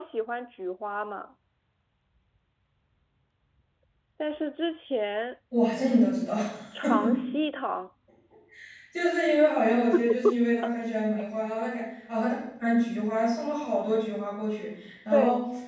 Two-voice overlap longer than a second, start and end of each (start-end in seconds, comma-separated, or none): none